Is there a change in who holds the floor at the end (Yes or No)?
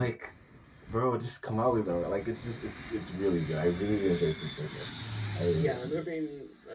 Yes